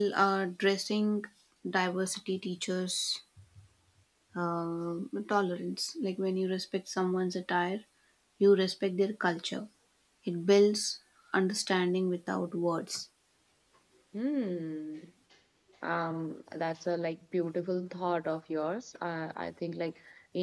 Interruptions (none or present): none